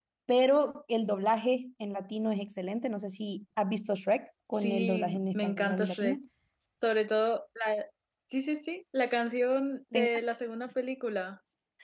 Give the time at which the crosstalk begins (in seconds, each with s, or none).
4.5 s